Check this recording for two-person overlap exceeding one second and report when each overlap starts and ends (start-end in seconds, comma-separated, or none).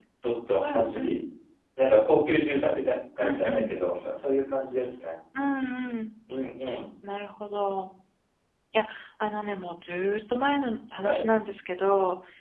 none